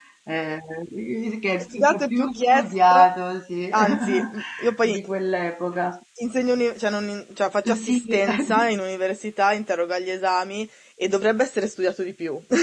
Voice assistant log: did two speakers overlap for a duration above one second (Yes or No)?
Yes